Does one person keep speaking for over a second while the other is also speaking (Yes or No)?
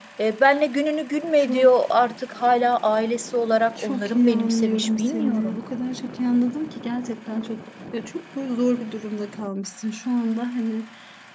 Yes